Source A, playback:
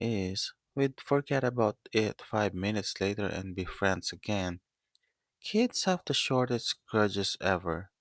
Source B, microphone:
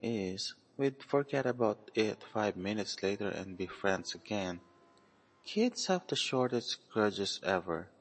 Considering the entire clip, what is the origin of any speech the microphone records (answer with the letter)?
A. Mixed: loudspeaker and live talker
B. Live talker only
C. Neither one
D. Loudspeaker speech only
D